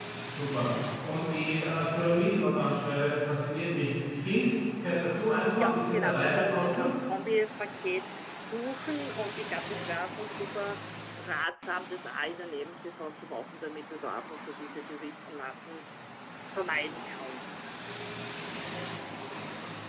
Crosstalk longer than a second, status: present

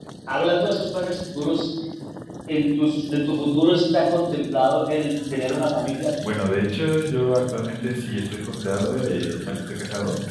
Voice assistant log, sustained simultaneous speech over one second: none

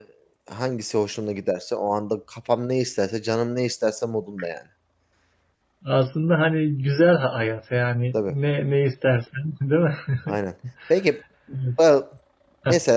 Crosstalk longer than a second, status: none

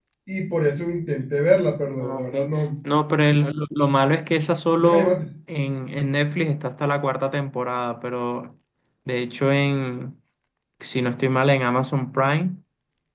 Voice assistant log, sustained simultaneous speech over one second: none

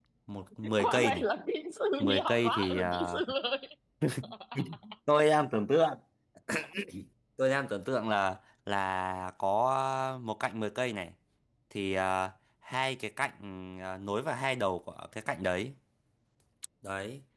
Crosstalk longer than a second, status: present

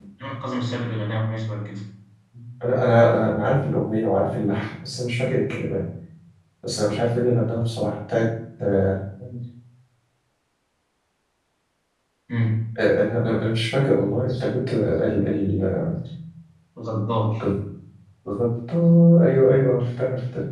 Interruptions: none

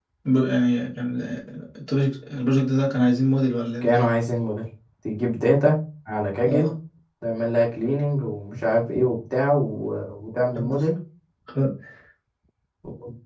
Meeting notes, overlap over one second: none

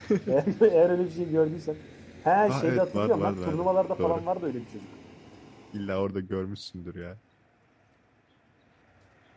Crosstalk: present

